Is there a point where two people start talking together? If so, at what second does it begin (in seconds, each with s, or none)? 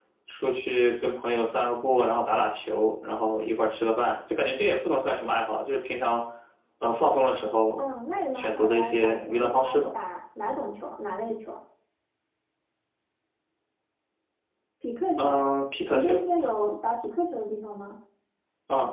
8.3 s